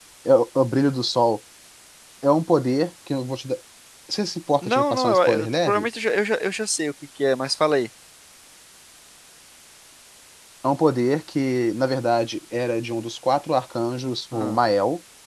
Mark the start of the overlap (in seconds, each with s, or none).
4.6 s